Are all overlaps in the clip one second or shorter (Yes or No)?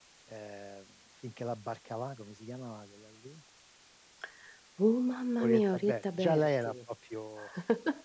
No